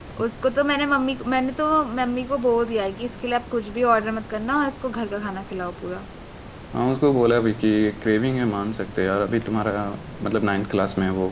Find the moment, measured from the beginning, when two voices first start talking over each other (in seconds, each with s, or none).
none